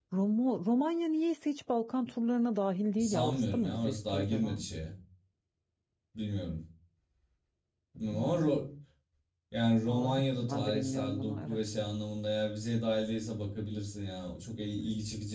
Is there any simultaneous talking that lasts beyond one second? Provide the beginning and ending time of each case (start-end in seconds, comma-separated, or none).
3.0-4.6, 9.9-11.6